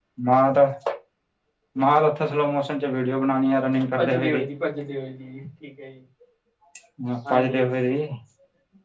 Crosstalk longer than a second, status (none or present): none